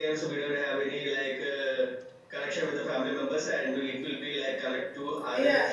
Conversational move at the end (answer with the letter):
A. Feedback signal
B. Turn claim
B